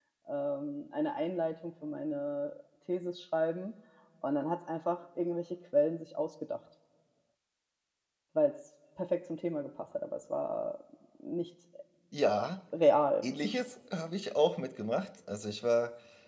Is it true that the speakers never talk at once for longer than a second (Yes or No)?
Yes